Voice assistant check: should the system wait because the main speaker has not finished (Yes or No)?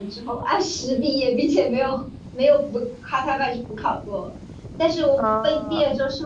Yes